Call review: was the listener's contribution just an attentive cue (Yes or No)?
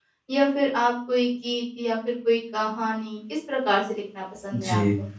No